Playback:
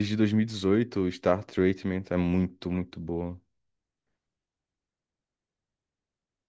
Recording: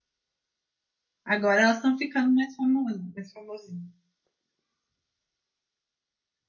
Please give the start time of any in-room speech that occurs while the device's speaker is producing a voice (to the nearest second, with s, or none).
1 s